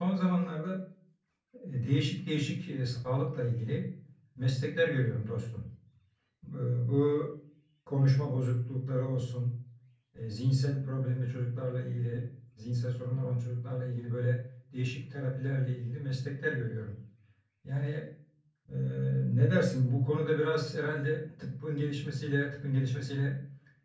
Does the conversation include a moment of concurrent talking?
No

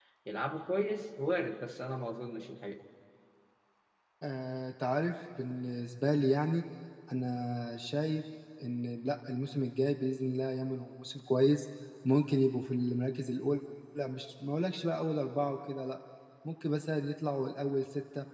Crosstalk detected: No

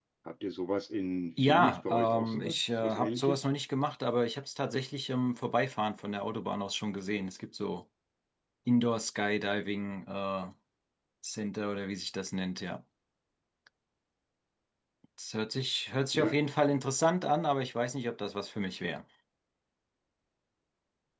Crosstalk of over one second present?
Yes, from 1.4 s

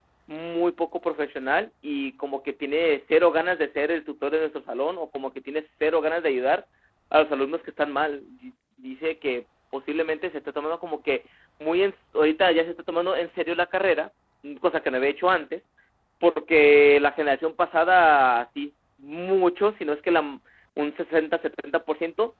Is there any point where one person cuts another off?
No

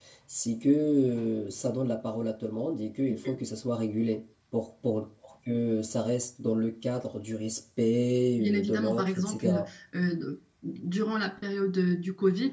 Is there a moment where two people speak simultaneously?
Yes, from 8.4 s

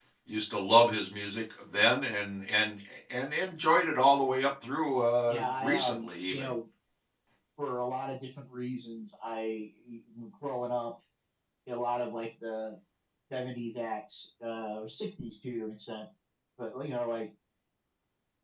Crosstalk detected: Yes, from 5.3 s

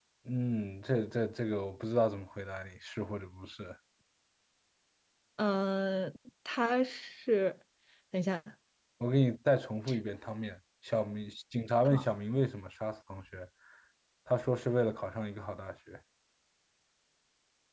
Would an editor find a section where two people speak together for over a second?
No

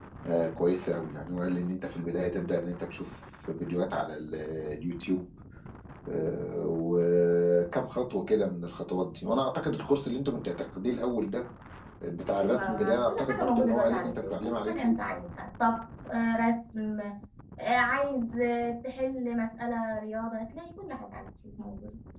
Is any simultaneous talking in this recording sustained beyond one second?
Yes, from 12.3 s

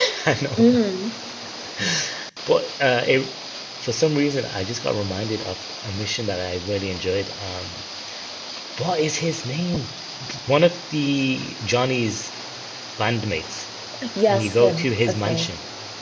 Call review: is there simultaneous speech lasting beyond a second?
Yes, from 14.3 s

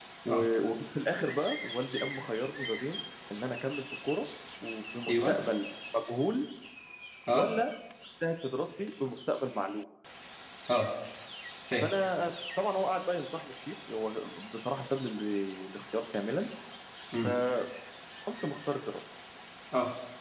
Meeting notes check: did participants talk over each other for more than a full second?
No

